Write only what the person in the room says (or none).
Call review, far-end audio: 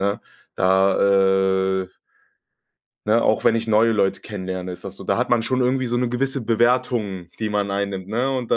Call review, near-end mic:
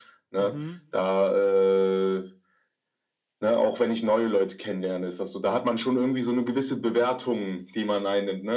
Mhm.